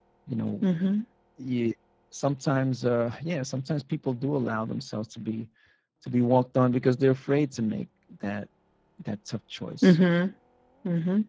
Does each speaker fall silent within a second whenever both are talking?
Yes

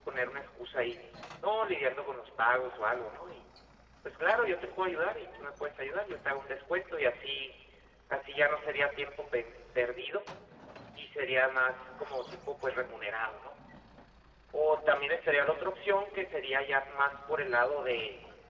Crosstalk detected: No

